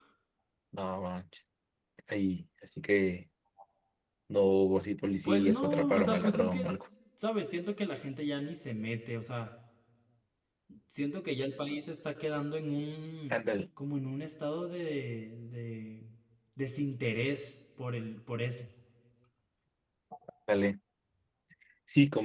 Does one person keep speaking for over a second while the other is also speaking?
Yes, from 5.2 s

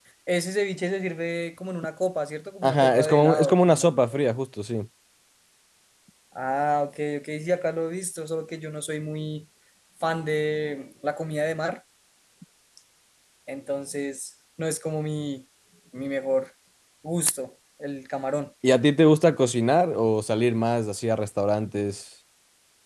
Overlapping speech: Yes, from 2.6 s

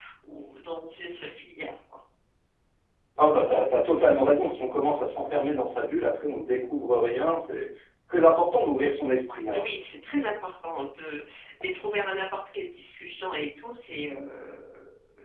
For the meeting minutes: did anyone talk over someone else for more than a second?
No

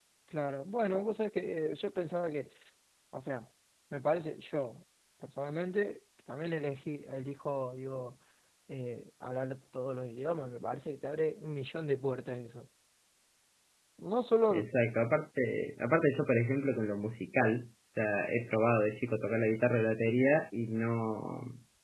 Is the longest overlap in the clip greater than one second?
No

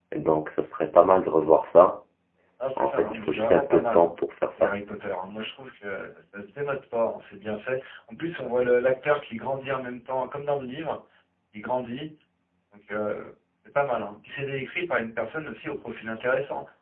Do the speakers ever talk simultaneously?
Yes, from 2.8 s

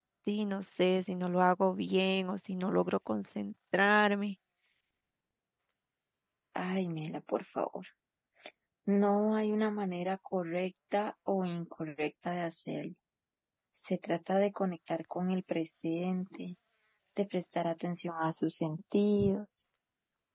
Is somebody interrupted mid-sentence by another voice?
No

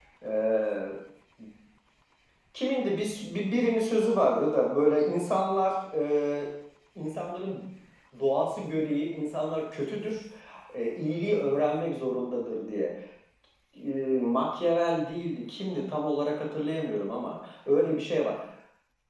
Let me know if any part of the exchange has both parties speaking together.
No

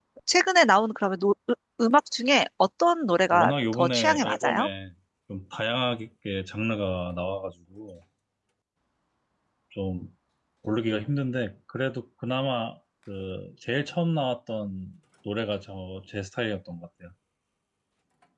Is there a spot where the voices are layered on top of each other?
Yes, from 3.3 s

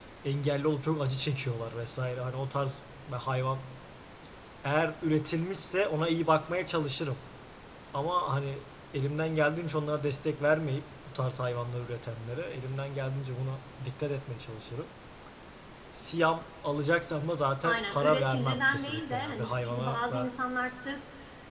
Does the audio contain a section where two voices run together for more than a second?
Yes, from 17.6 s

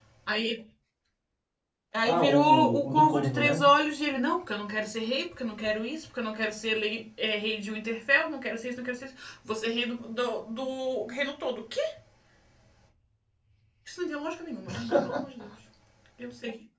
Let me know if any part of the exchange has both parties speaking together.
Yes, from 2.0 s

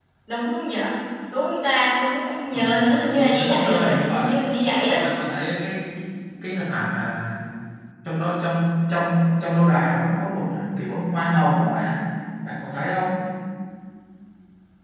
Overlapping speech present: Yes, from 2.5 s

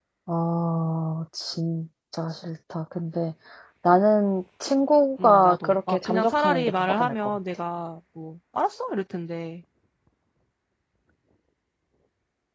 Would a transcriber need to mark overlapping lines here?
Yes, from 5.2 s

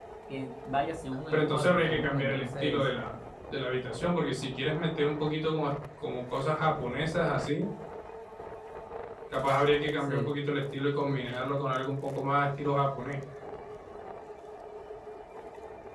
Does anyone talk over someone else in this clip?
Yes, from 1.3 s

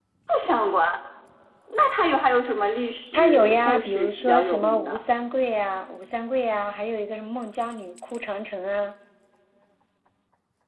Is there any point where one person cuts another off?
Yes, from 3.1 s

